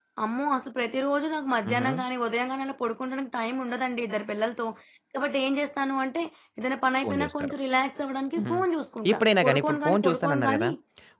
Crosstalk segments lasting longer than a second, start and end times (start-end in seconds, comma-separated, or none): 9.1-10.7